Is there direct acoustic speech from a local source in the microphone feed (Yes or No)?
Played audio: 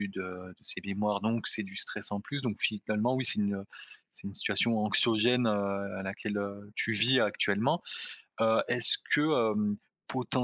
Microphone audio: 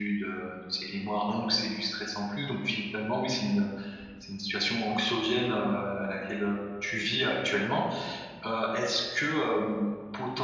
No